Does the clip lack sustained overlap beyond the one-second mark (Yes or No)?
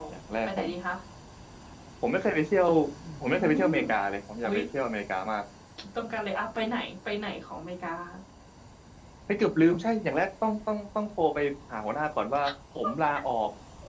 Yes